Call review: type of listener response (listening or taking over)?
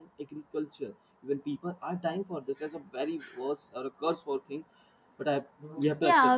taking over